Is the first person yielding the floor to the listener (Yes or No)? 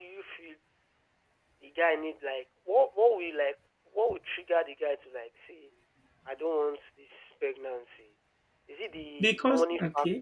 No